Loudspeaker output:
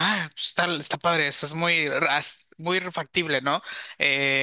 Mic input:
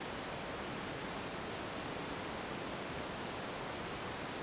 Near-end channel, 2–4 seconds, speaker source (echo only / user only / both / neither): neither